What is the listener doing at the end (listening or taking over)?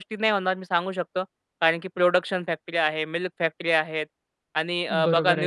taking over